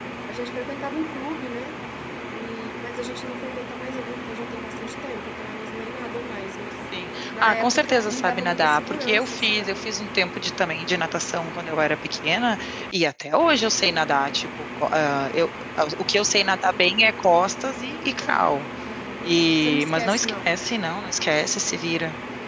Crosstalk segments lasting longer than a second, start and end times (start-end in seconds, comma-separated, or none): 7.4-9.8, 19.2-20.5